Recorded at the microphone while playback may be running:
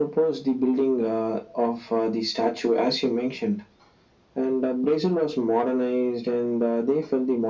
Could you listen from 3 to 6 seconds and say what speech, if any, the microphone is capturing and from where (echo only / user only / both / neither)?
echo only